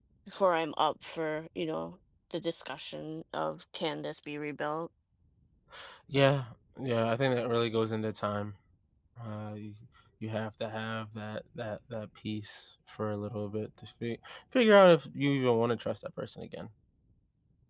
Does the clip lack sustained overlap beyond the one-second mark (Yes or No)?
Yes